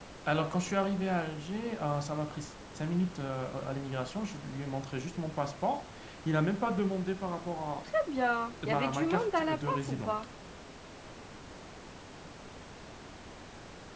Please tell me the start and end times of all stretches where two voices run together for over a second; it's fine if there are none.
8.7-10.2

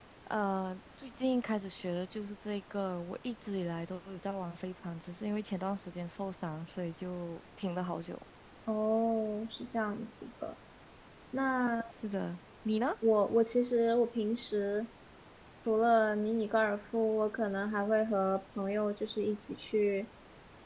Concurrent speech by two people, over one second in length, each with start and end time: none

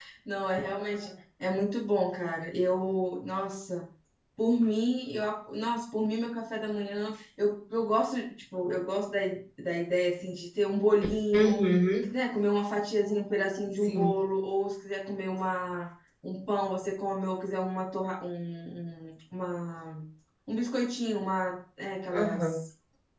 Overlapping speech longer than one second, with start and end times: none

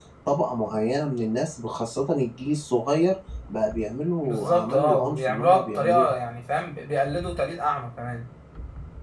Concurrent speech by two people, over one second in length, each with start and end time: 4.2-6.1

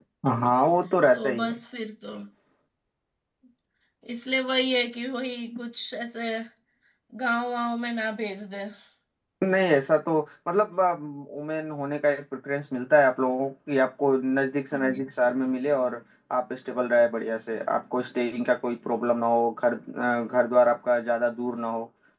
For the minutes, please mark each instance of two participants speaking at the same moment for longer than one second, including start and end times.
none

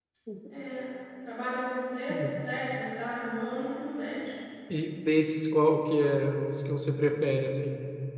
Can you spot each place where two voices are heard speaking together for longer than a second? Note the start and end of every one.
none

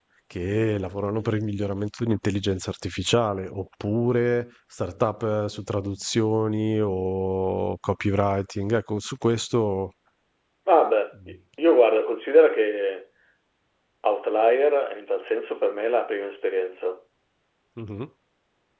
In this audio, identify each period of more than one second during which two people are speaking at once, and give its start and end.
none

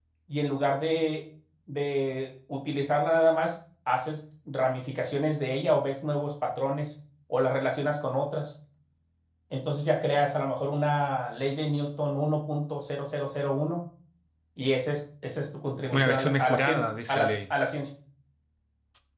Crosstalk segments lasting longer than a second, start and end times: 15.9-17.4

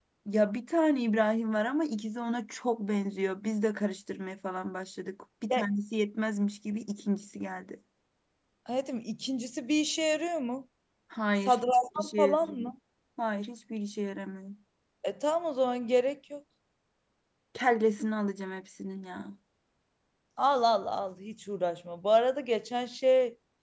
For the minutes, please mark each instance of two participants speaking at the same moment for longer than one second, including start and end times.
11.5-12.7

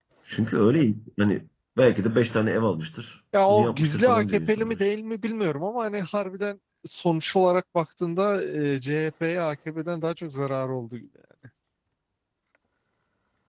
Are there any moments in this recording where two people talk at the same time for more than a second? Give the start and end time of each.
3.5-4.8

